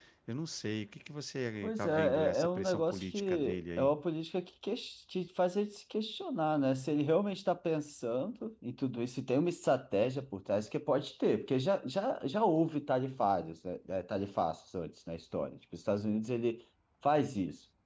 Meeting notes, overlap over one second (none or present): present